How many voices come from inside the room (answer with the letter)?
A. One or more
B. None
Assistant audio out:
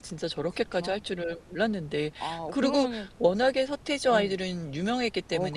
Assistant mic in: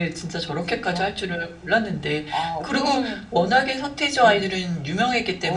B